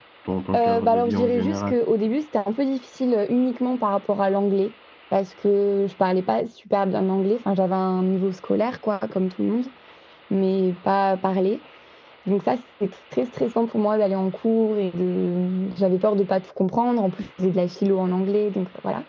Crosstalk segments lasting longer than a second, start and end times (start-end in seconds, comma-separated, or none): 0.5-1.8